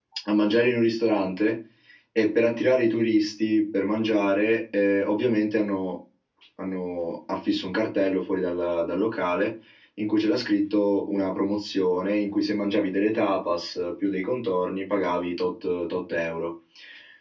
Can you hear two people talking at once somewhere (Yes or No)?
No